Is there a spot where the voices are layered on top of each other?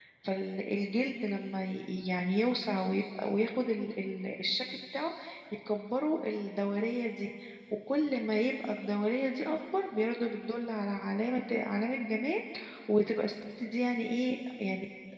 No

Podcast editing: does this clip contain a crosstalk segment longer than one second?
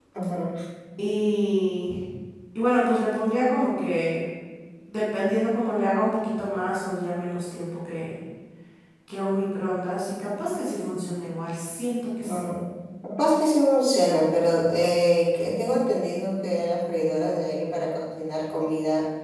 No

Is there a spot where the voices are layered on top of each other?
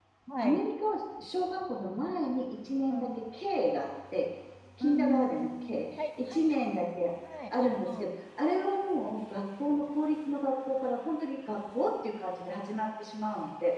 Yes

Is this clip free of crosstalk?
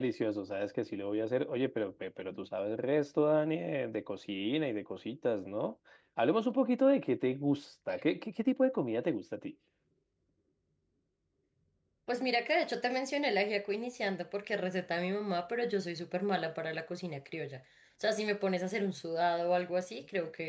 Yes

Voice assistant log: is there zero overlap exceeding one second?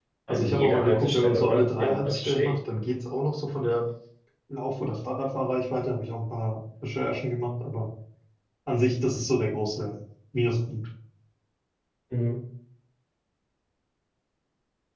No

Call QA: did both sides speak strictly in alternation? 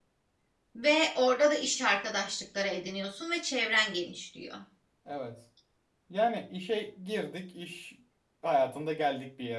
Yes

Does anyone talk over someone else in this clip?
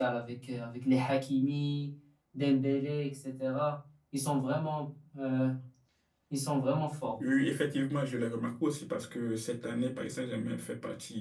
No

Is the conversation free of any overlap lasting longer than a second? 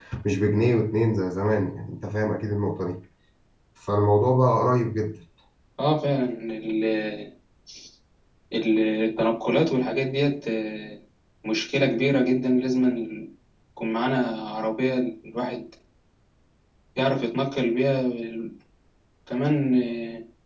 Yes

